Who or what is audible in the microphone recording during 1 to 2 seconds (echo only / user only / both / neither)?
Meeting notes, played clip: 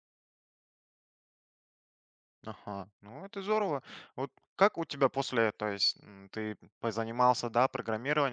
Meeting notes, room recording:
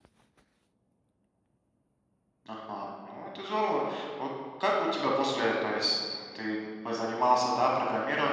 neither